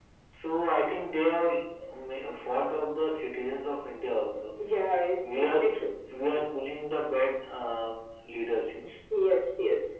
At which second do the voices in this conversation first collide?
none

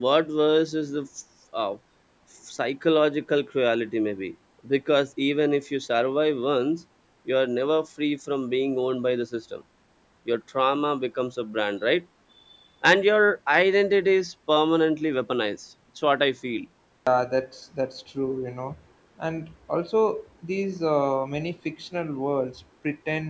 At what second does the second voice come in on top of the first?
none

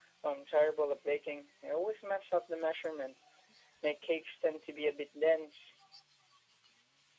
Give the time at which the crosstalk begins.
none

